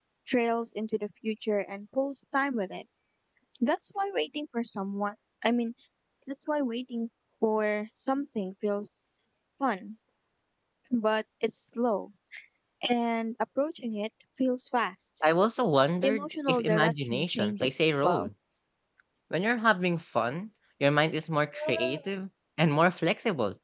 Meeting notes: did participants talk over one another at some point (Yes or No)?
Yes